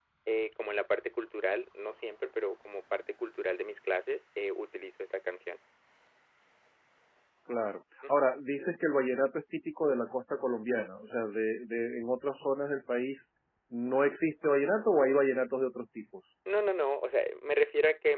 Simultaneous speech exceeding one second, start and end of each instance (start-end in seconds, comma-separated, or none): none